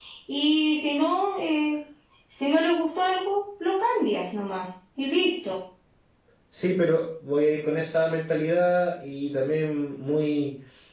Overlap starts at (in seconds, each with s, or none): none